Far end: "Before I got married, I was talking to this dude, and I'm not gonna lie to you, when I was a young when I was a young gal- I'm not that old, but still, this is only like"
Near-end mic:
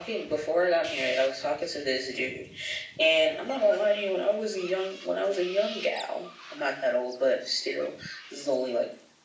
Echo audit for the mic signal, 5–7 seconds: echo only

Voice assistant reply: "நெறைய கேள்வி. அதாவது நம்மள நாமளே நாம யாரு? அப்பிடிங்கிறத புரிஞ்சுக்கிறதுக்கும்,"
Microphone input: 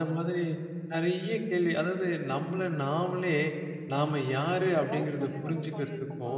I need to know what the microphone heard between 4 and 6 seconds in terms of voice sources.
both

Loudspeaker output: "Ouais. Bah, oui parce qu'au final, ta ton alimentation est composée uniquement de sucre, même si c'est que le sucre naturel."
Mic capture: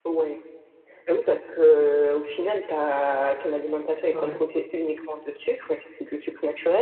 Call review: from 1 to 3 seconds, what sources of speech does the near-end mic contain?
echo only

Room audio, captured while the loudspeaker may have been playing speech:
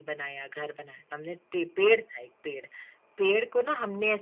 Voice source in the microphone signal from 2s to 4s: echo only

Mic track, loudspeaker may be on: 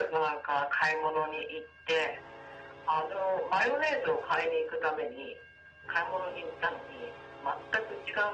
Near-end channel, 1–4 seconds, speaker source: echo only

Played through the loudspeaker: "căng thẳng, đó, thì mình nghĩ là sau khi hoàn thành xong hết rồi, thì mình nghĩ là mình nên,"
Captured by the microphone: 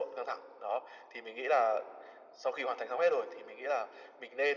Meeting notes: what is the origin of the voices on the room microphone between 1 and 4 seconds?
echo only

